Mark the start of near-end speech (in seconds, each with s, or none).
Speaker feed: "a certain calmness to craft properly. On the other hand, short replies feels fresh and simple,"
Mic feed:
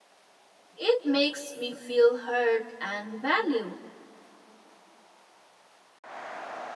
0.8 s